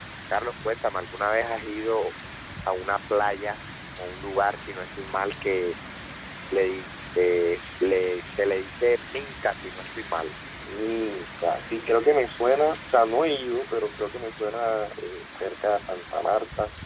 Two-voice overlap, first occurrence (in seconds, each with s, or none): none